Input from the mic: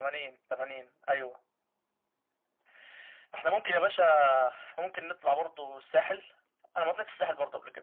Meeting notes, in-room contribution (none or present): none